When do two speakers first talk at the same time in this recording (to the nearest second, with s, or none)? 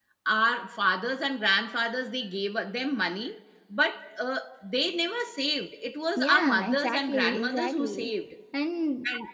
6 s